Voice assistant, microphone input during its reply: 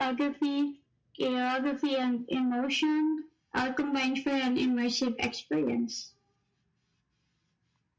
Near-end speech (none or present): none